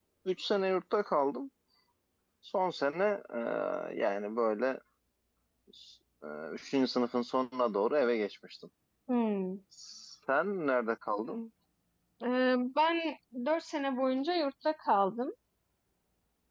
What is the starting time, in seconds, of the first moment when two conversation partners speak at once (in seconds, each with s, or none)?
none